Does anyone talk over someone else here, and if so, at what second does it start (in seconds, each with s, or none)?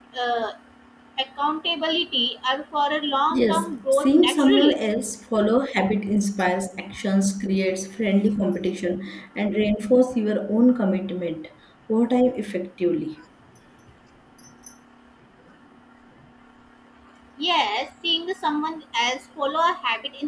3.3 s